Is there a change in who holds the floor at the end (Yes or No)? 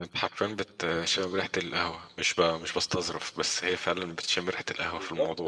Yes